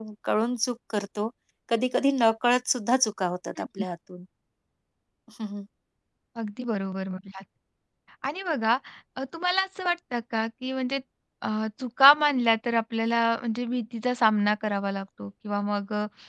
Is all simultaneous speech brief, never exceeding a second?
Yes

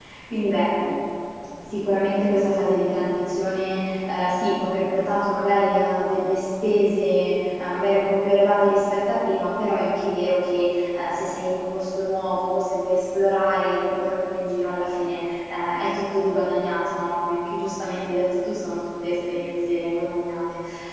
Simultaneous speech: No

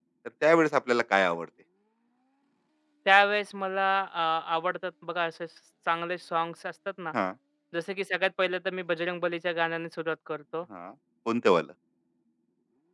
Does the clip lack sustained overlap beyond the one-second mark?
Yes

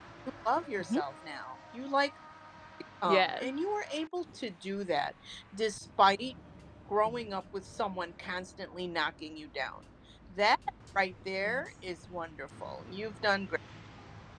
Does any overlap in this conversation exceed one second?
No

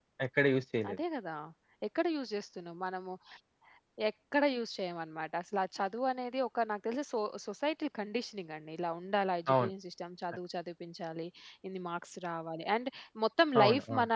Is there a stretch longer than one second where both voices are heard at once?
No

